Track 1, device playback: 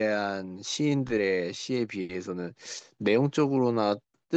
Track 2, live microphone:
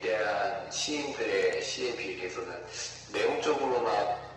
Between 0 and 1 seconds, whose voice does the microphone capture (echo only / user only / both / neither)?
echo only